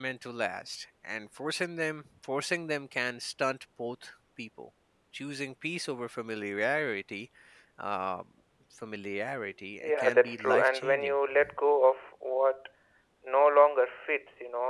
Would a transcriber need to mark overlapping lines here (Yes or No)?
Yes